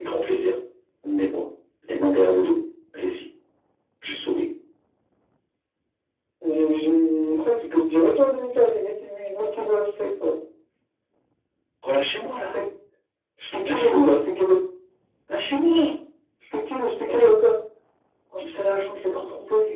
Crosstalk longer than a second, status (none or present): none